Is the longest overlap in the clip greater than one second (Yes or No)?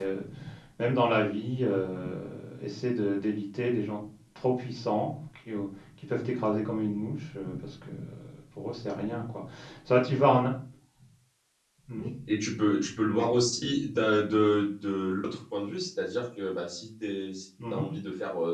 No